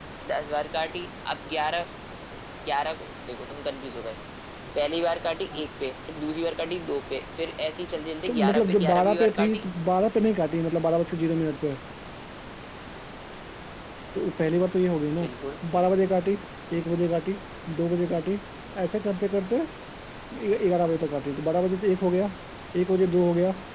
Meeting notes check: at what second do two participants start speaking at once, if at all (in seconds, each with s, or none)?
8.3 s